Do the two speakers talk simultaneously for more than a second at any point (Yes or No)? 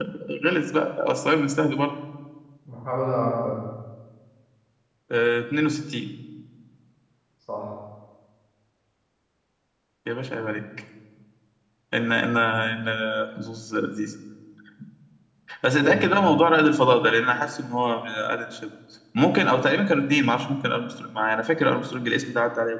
No